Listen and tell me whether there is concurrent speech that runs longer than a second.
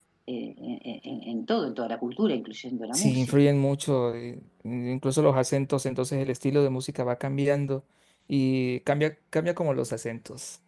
No

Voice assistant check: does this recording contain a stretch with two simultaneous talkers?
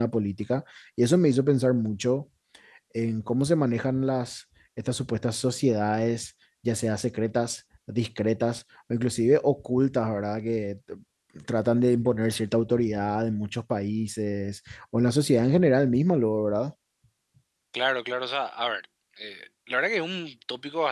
No

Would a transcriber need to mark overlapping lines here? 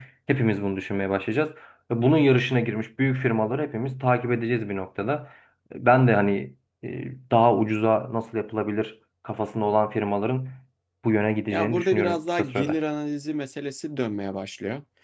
Yes, from 11.5 s

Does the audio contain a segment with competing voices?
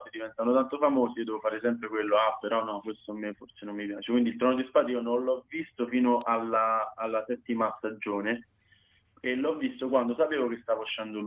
No

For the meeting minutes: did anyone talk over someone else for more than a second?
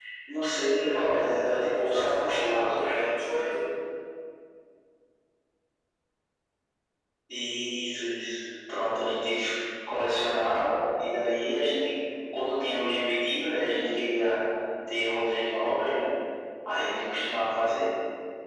Yes, from 0.8 s

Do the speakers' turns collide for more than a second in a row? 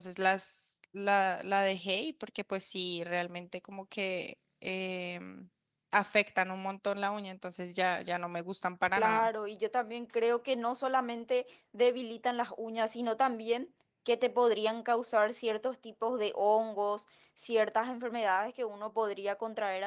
No

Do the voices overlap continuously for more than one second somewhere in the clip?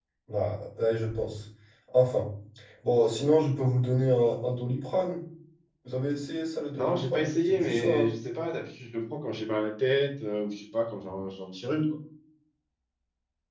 Yes, from 6.8 s

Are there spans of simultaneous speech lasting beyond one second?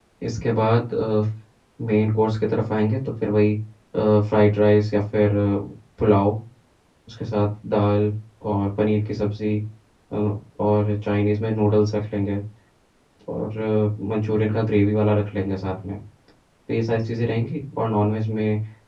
No

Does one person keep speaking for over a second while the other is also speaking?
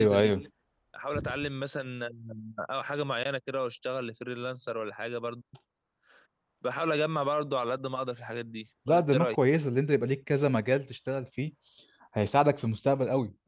No

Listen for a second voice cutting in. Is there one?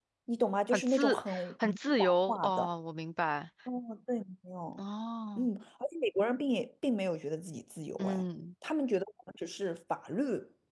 Yes, from 0.7 s

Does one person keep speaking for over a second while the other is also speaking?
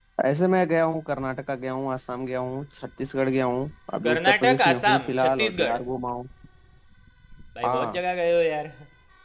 Yes, from 4.0 s

